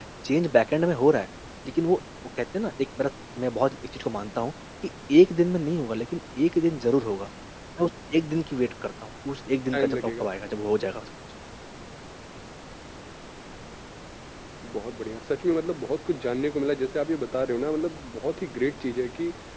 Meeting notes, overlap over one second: none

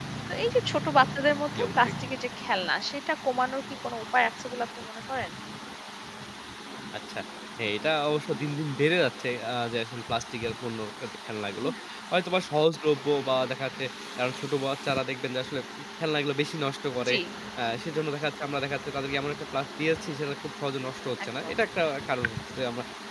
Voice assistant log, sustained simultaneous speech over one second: none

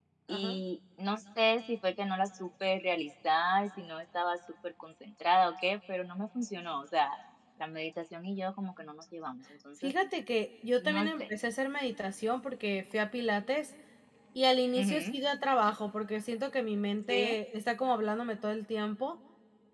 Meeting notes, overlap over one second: none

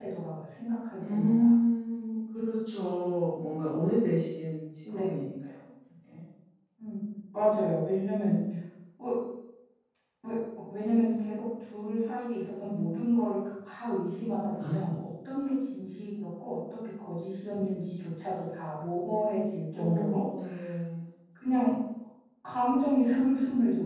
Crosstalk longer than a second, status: none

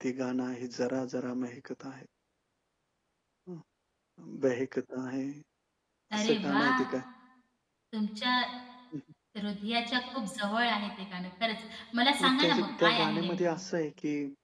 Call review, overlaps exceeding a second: present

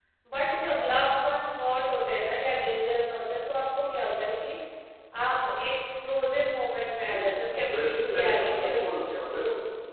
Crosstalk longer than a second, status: present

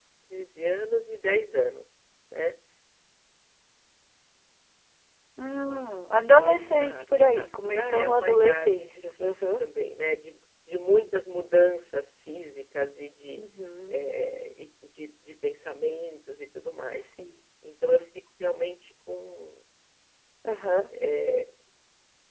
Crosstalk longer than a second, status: present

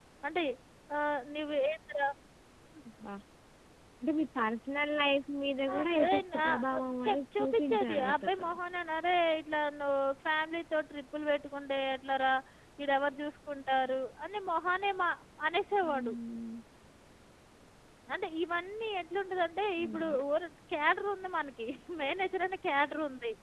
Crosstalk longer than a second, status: present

